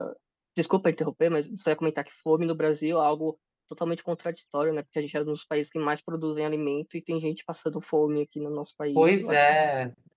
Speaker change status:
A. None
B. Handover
B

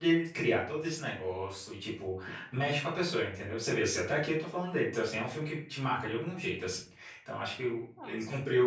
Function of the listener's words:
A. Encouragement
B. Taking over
A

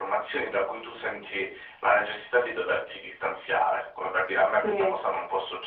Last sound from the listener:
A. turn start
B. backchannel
B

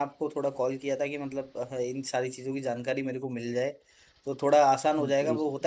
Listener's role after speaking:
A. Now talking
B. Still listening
B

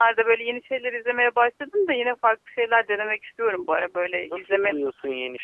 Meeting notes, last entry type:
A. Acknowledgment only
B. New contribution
B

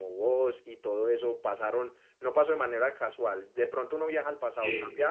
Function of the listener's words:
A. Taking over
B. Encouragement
B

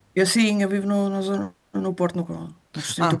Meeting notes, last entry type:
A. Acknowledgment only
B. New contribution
B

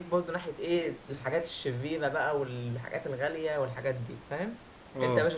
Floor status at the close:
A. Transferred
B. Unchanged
B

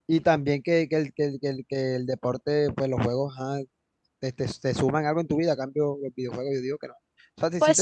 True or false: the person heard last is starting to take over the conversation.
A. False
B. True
A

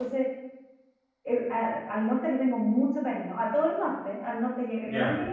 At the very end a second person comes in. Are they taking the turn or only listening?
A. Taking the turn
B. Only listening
B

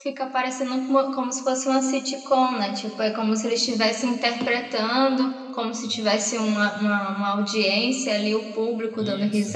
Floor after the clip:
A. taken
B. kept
B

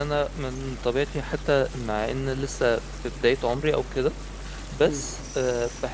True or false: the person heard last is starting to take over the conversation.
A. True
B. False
B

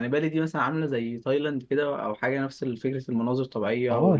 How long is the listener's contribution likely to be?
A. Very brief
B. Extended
B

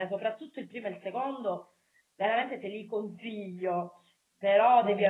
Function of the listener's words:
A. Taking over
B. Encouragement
B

